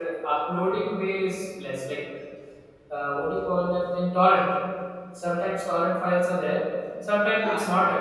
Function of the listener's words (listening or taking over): listening